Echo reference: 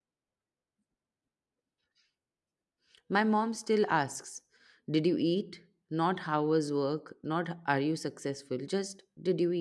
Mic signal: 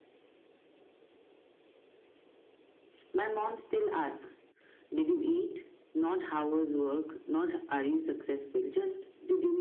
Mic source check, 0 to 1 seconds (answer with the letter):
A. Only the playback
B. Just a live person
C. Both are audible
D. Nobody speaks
D